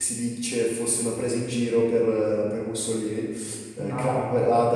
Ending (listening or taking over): listening